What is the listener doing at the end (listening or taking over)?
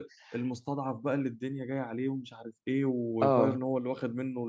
listening